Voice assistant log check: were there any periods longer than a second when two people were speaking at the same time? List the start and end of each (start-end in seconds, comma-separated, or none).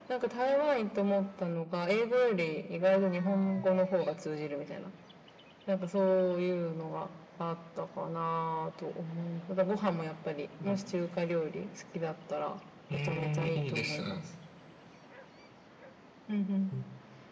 12.9-14.2